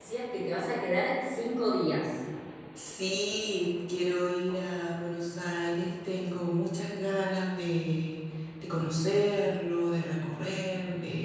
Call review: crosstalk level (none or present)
none